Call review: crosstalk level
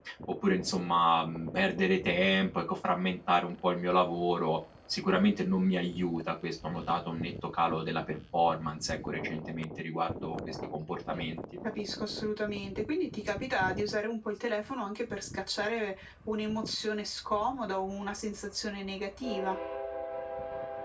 none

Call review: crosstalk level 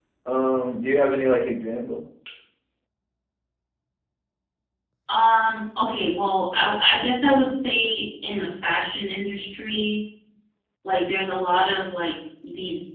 none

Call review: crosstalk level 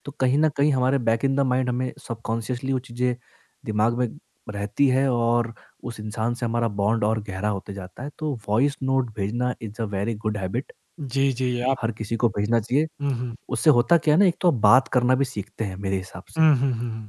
none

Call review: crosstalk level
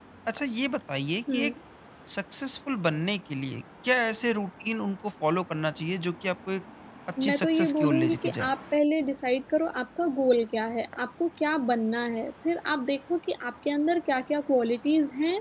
present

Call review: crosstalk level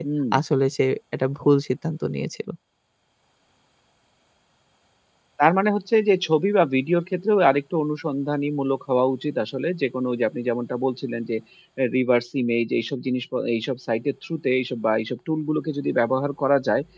none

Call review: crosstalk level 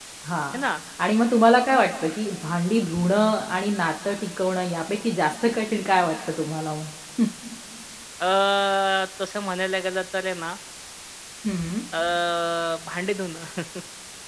none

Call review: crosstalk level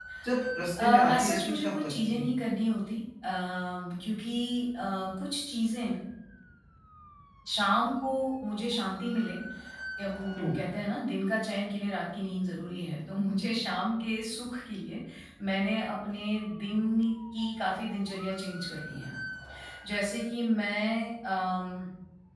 present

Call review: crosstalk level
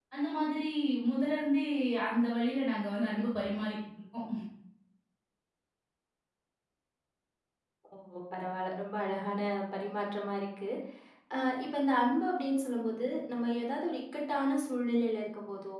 none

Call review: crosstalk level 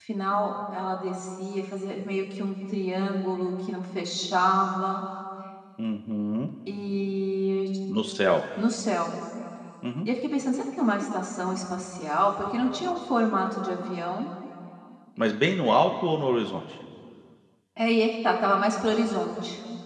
none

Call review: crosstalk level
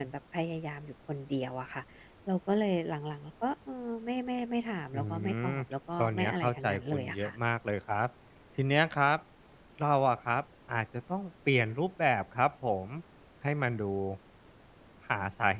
present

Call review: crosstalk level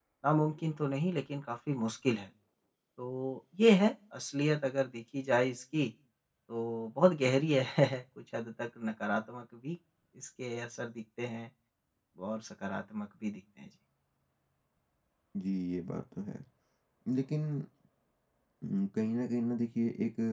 none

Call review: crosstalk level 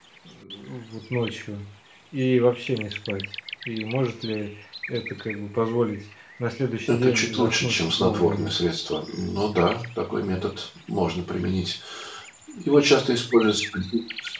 present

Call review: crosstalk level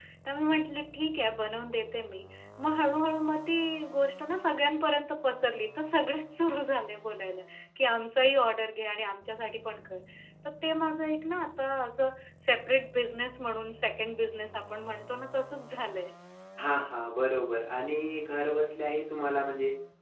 none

